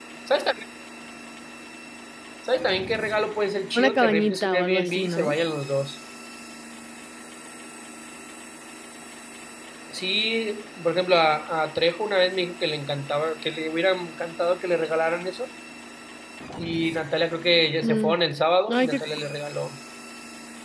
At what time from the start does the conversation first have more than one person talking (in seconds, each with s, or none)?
3.8 s